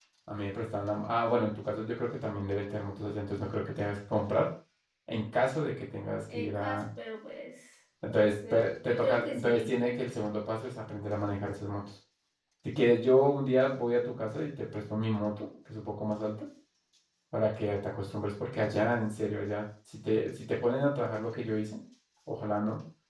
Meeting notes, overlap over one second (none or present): present